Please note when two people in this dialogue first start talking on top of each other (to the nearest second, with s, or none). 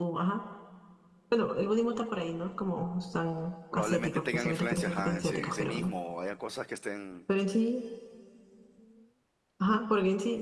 4 s